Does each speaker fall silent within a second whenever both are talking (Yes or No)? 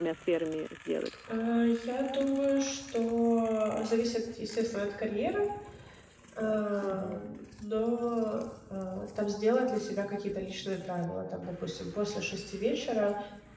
Yes